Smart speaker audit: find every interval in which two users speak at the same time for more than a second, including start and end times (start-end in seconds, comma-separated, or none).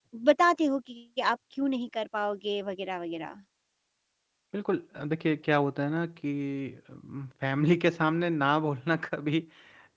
none